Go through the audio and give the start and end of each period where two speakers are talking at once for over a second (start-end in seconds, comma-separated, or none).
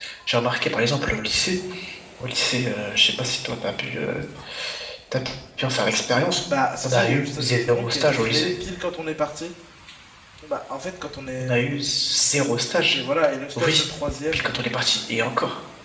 6.8-8.5